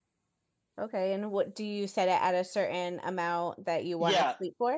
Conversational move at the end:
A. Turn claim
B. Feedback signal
A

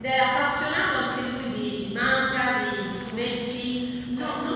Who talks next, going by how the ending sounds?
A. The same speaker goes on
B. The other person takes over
A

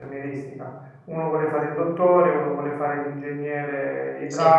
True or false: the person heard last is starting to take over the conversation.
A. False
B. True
A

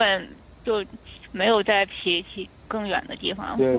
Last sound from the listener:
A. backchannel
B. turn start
B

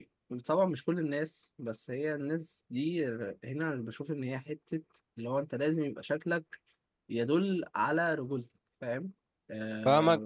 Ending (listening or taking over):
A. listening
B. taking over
B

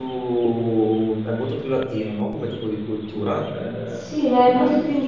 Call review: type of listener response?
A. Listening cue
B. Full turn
B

